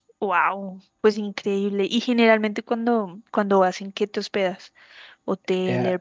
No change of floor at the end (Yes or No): No